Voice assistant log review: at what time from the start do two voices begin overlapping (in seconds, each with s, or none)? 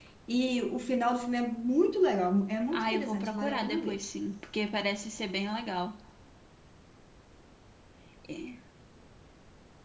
2.7 s